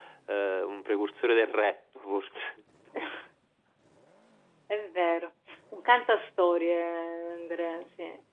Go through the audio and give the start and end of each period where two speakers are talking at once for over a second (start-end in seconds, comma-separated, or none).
none